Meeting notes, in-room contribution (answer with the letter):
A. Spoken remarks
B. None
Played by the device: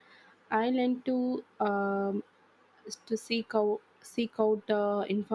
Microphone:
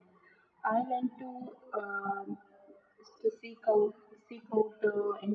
B